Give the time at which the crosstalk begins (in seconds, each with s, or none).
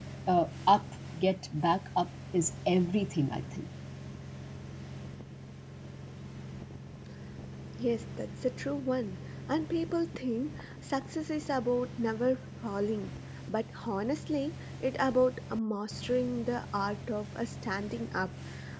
none